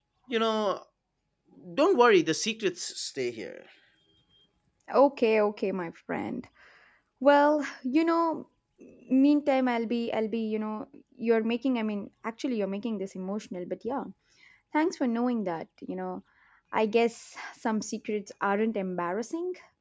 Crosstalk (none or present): none